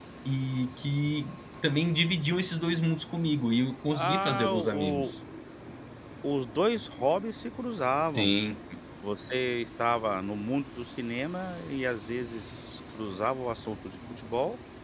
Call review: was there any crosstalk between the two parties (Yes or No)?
Yes